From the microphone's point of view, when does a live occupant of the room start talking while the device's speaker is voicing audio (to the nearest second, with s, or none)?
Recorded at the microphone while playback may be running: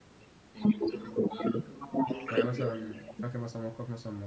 2 s